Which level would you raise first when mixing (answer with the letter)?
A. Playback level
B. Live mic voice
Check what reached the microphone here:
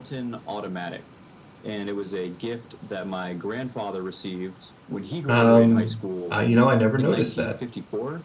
A